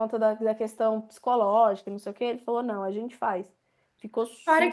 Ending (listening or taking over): taking over